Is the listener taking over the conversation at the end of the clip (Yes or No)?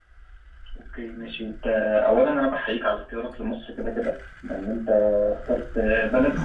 No